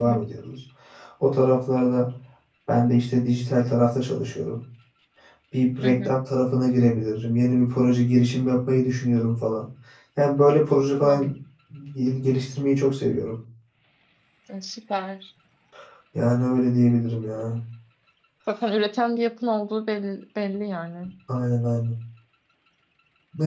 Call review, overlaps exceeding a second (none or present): none